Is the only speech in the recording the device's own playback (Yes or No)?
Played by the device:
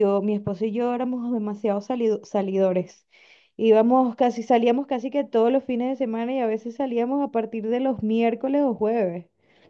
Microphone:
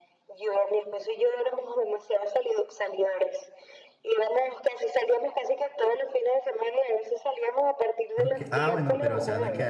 No